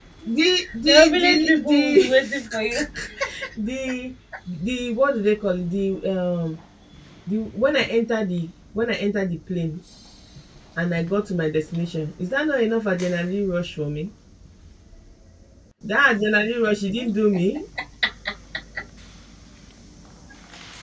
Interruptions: present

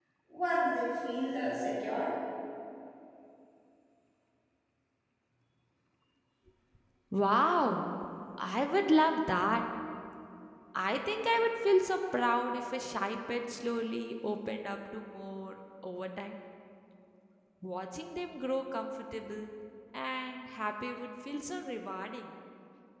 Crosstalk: none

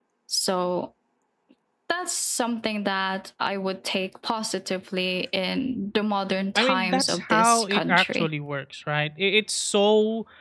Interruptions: present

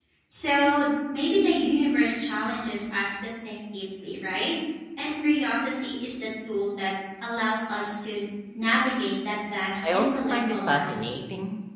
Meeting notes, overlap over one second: present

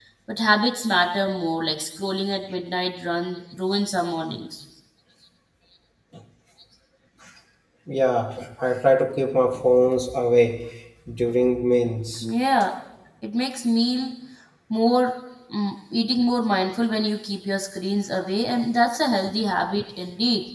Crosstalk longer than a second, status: none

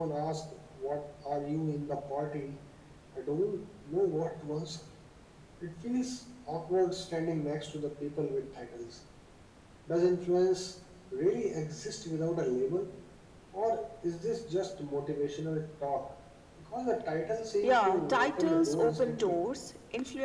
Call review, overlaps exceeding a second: present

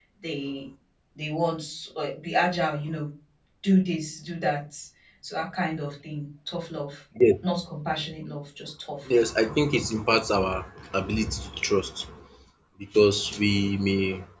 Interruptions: none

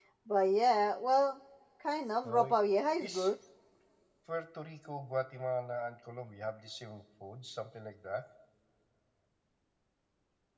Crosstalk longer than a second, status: none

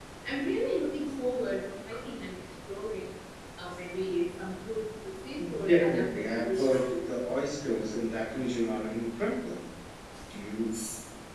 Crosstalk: present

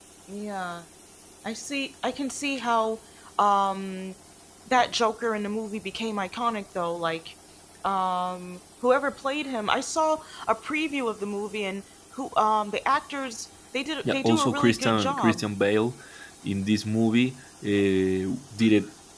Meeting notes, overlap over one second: present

